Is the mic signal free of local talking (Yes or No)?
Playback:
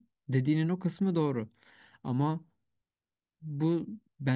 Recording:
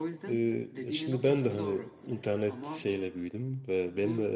No